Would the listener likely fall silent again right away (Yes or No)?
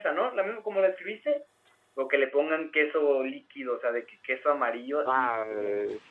No